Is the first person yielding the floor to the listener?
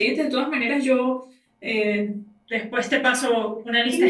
Yes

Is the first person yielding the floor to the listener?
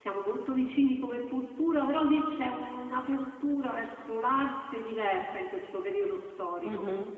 Yes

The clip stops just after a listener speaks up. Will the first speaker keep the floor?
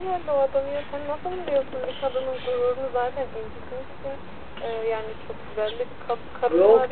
No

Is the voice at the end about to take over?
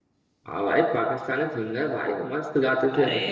Yes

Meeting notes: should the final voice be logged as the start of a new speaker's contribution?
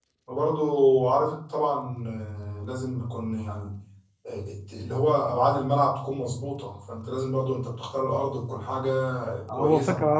Yes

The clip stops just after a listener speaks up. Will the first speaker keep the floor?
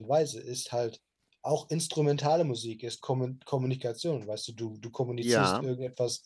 Yes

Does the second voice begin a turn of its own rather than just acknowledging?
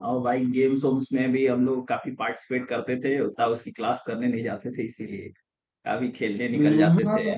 Yes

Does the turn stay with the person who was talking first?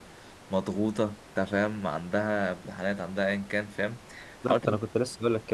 No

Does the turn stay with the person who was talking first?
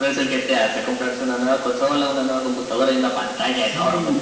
No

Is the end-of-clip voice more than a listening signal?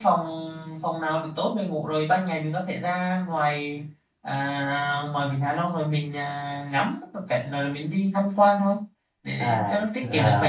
Yes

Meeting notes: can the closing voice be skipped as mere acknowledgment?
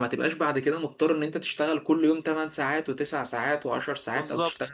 Yes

